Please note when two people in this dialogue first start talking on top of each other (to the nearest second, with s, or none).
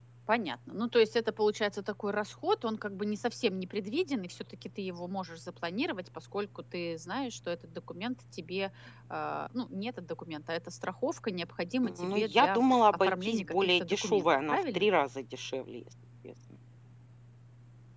12 s